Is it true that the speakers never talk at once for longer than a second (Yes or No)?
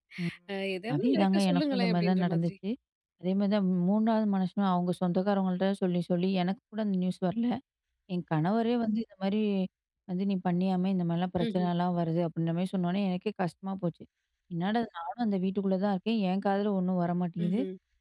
No